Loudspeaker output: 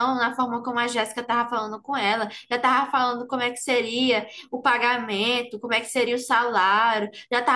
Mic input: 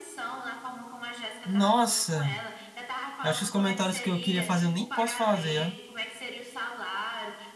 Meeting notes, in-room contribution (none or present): present